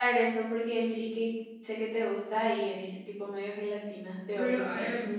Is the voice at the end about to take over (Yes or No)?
Yes